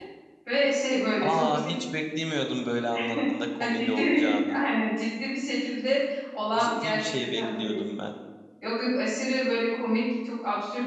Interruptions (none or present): present